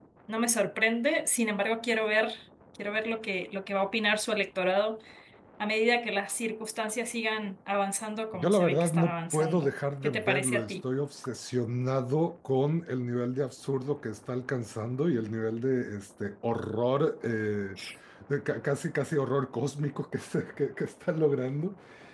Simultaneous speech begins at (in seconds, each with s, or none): 8.3 s